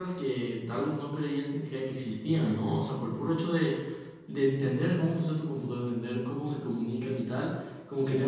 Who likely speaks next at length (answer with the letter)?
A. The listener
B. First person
B